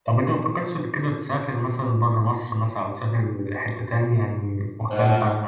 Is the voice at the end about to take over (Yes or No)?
Yes